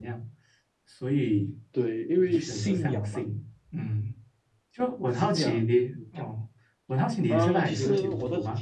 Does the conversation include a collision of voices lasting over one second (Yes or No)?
Yes